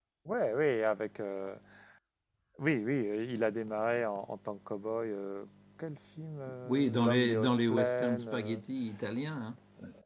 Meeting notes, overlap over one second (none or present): present